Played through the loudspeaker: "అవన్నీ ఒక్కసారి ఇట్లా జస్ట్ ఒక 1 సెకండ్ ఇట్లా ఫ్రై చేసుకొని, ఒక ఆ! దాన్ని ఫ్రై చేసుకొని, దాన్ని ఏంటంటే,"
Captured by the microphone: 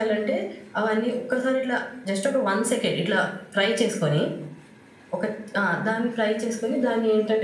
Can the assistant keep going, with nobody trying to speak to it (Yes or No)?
Yes